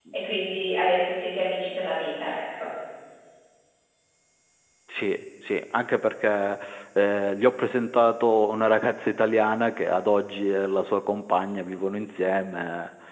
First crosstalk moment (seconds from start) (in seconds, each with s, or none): none